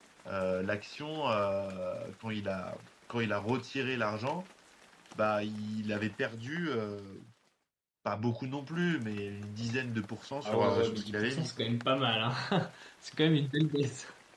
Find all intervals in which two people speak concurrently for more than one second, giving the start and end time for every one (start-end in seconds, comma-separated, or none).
10.4-11.7